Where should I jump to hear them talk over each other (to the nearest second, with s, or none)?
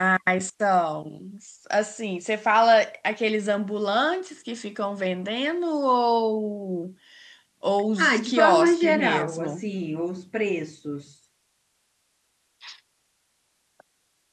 8 s